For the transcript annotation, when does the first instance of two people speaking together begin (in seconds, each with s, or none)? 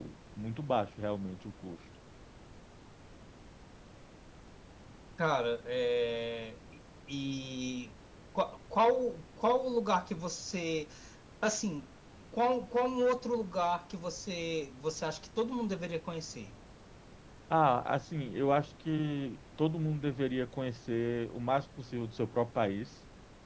none